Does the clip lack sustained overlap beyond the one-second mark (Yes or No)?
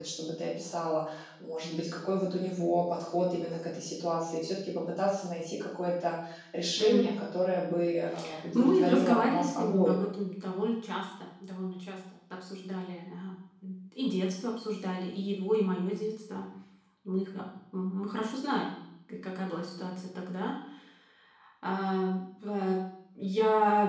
No